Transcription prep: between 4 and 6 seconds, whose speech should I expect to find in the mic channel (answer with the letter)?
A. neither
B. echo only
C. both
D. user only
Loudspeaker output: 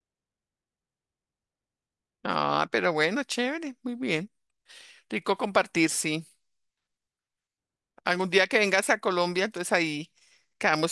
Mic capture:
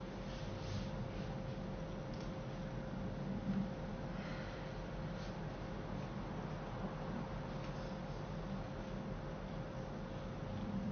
A